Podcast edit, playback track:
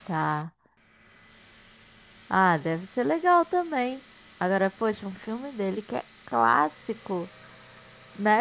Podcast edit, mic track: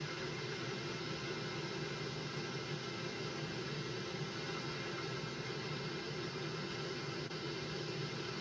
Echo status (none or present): none